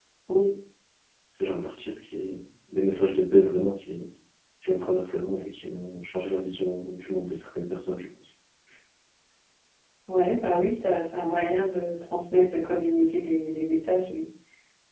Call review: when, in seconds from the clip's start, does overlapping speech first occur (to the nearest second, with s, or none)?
none